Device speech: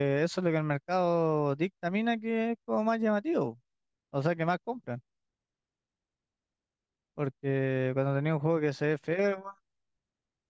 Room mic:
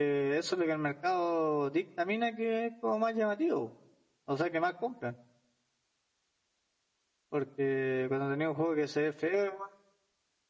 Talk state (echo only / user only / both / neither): echo only